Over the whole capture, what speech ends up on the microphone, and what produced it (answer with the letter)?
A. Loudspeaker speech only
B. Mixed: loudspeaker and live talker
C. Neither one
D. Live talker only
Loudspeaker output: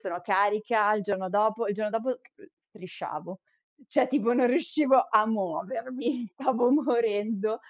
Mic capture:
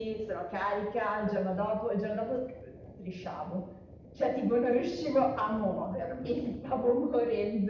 A